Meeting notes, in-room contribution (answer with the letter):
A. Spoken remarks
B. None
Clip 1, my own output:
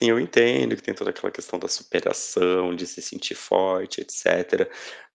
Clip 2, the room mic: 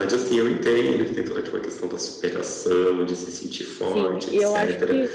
A